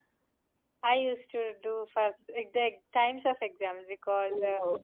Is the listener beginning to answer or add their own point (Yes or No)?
No